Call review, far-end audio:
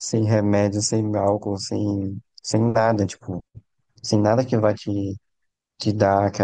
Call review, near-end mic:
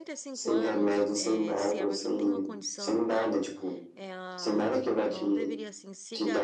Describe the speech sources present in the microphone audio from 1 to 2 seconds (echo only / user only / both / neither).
both